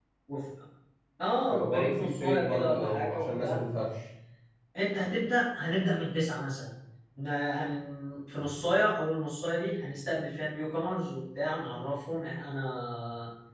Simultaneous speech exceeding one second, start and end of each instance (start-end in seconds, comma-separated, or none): 1.4-3.6